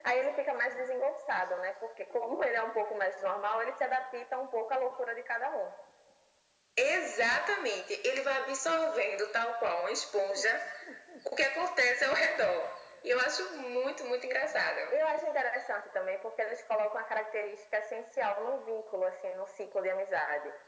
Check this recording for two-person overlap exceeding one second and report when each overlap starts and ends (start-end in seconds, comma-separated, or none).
none